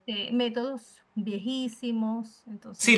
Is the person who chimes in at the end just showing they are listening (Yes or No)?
No